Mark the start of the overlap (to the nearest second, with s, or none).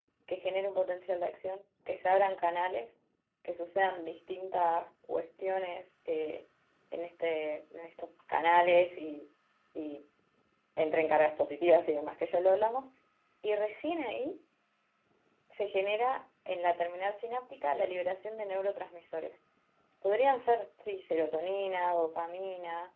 none